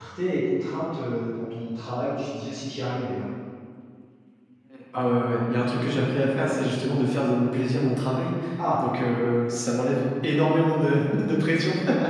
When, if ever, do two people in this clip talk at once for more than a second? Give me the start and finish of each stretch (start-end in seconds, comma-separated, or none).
none